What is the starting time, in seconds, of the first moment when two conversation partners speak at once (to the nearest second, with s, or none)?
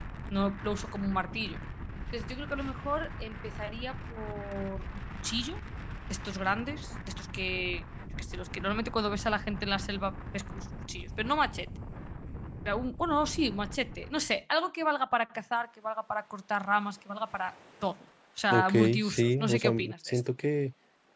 19 s